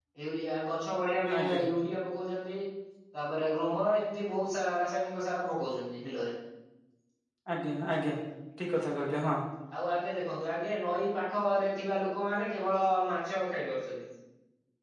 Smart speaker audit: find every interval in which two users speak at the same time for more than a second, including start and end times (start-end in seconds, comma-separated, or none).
none